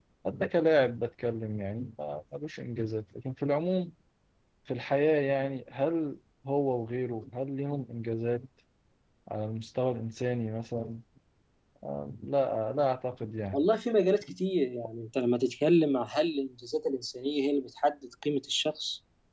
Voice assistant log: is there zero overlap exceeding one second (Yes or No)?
Yes